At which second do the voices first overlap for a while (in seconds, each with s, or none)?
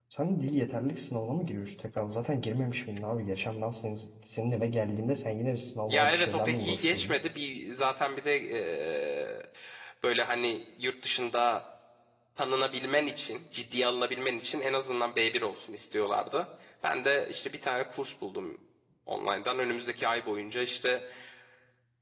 5.9 s